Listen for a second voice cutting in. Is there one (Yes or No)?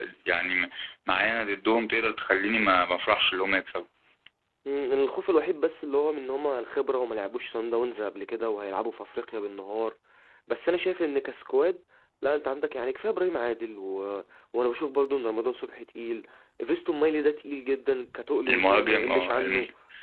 Yes